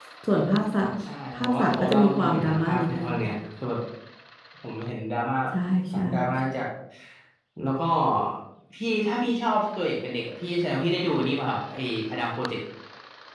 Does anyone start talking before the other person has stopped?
Yes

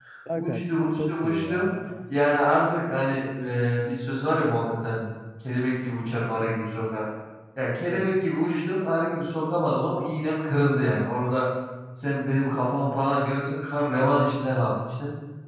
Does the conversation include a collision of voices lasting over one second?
Yes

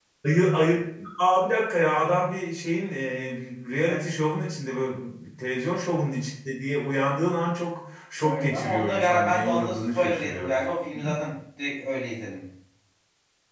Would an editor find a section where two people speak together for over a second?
Yes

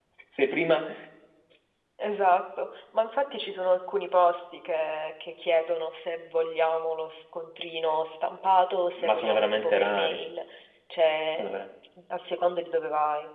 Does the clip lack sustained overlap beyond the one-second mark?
No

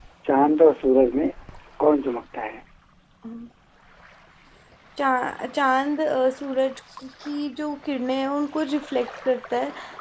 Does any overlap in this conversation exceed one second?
No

